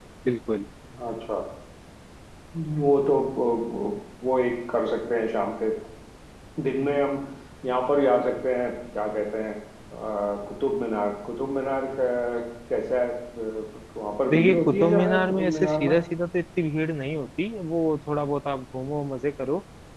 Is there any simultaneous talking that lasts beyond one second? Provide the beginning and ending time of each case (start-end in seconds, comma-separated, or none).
14.3-15.9